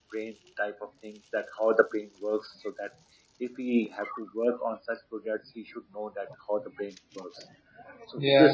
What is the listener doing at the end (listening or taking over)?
listening